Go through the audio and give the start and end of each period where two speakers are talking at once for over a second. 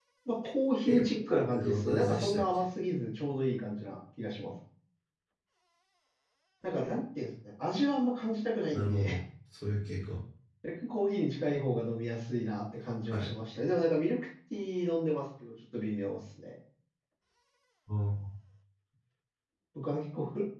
0.9-2.7

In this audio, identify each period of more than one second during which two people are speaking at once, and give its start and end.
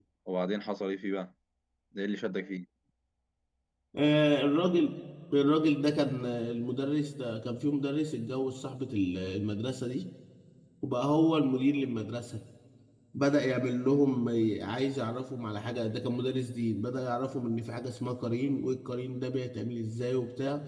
none

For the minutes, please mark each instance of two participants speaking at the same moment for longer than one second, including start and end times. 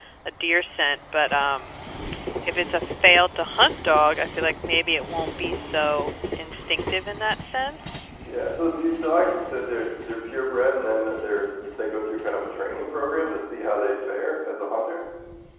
none

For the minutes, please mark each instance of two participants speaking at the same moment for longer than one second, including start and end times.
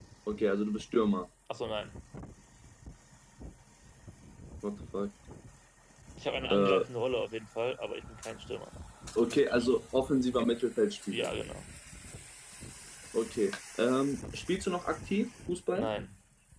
none

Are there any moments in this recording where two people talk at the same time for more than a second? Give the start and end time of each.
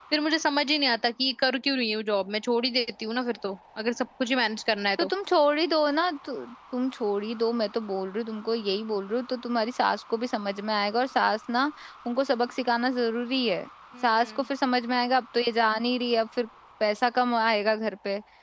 none

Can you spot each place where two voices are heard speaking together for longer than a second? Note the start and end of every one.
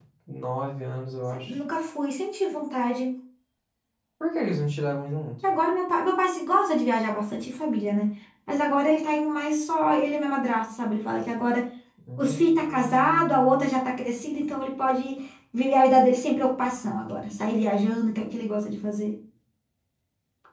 12.2-13.7

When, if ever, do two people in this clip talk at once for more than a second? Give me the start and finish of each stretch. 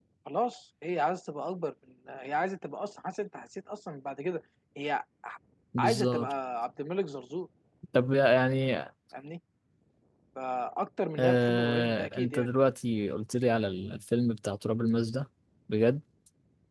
11.2-12.5

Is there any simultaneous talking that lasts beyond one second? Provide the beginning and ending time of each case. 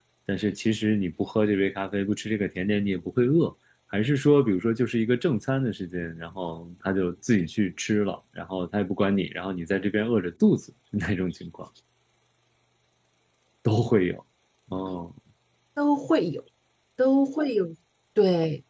none

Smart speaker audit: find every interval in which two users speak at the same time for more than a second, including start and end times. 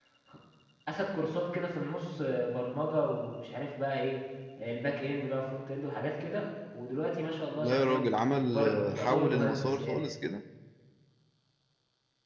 7.6-10.0

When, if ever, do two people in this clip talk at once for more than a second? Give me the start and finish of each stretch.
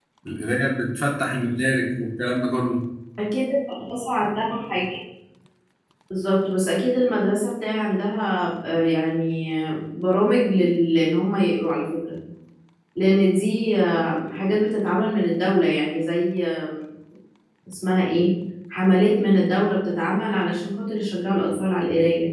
none

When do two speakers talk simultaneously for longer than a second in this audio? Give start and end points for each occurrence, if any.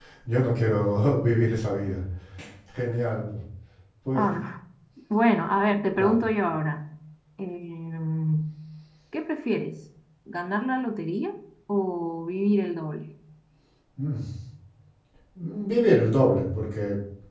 none

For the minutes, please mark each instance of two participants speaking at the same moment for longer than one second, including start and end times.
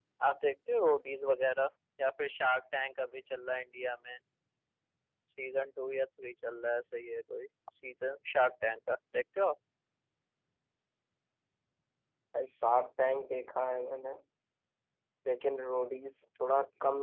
none

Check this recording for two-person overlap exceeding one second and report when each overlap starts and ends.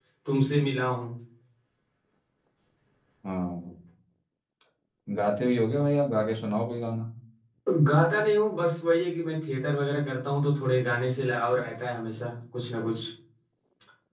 none

